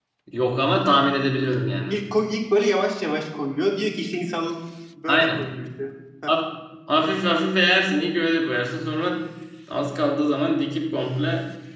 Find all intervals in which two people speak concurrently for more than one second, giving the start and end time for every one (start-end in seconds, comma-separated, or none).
none